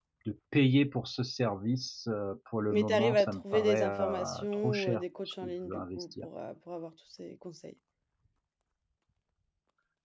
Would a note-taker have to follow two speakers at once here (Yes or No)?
Yes